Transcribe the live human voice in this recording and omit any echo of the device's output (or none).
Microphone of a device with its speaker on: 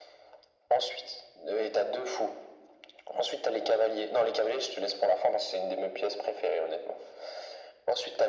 none